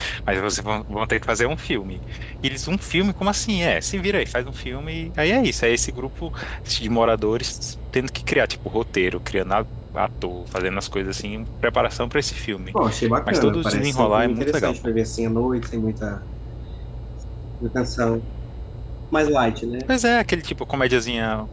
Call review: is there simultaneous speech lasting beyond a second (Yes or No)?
Yes